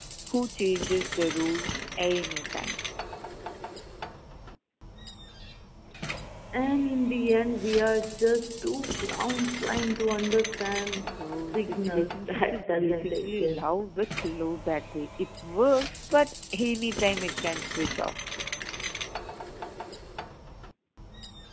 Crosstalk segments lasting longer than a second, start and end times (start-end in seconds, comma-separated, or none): 11.0-13.8